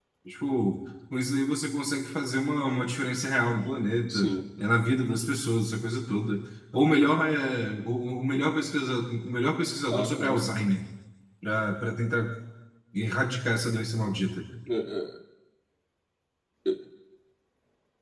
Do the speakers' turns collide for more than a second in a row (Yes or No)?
No